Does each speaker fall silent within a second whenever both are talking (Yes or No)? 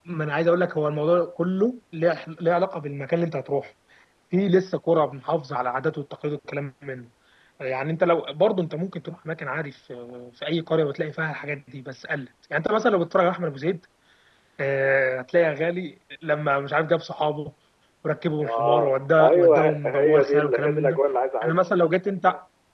No